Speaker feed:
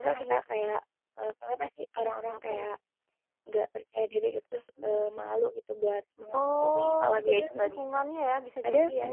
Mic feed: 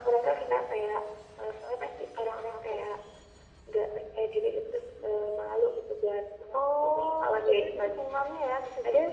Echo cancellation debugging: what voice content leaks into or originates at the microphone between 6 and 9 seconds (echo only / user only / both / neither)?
echo only